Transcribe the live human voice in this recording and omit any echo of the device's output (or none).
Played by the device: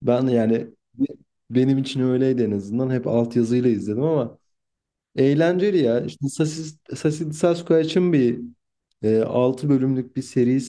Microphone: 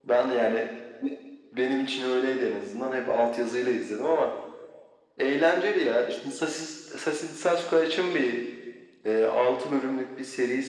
none